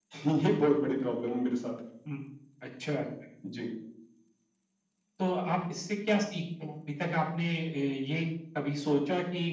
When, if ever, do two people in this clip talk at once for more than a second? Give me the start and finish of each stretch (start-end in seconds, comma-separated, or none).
none